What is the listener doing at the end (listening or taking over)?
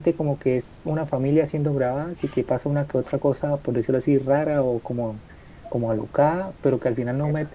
listening